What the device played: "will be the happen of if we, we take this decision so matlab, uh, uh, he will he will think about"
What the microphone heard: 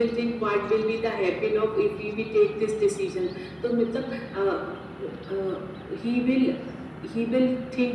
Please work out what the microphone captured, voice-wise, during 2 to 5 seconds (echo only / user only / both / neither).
echo only